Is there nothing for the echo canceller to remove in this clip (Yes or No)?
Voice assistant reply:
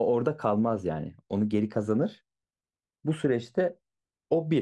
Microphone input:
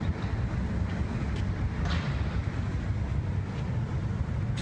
Yes